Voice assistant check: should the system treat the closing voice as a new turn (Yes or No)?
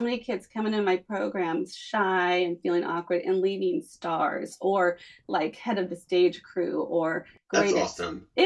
No